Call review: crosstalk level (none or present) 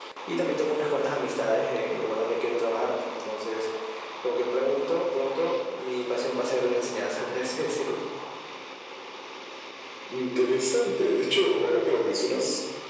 none